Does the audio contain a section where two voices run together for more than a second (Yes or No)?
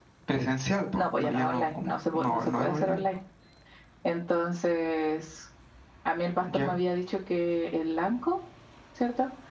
Yes